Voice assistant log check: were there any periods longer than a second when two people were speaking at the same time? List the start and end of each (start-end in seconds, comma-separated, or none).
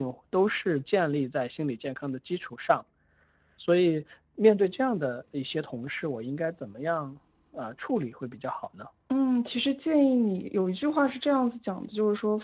none